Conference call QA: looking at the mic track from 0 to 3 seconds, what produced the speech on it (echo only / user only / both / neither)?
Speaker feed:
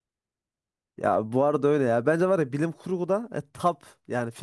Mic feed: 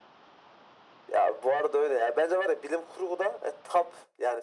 echo only